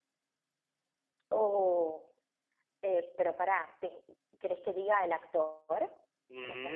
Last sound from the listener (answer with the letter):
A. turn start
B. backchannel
A